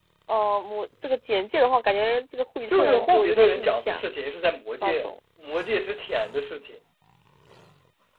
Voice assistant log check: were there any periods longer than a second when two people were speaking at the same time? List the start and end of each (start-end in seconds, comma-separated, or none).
2.7-4.1